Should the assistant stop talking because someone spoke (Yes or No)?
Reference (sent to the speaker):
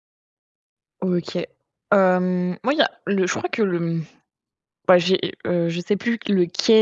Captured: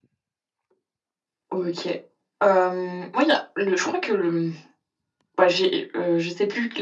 No